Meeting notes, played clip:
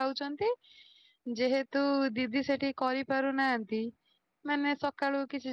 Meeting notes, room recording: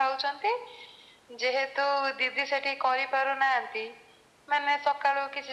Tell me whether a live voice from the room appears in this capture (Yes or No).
No